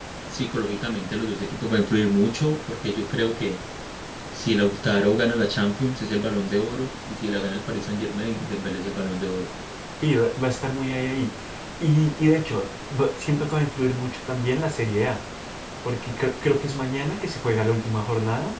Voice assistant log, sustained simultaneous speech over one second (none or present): none